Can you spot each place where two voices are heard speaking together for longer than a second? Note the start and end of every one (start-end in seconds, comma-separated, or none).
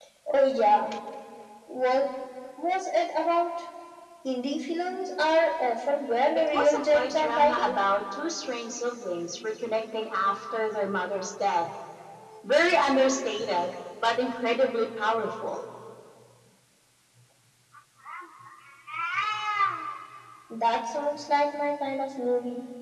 6.5-7.7